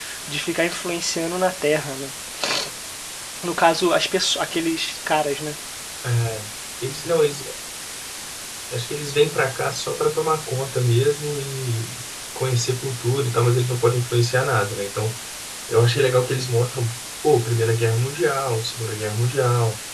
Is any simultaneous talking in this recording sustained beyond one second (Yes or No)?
No